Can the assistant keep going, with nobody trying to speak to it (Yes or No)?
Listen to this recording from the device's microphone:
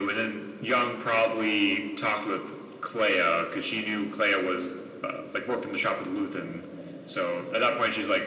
Yes